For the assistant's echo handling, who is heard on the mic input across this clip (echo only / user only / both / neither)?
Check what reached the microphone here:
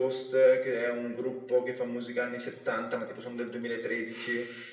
echo only